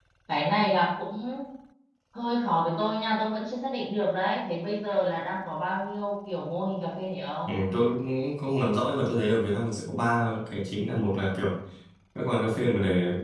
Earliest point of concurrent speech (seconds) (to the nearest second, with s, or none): none